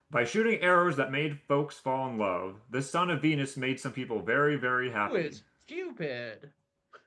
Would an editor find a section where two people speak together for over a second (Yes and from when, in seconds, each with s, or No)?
No